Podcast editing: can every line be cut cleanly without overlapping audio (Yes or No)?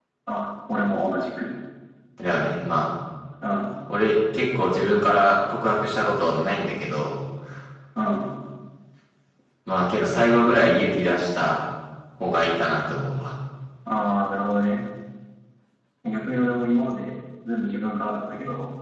Yes